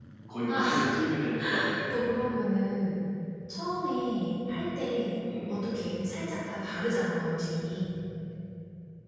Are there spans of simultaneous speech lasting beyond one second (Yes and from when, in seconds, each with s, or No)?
No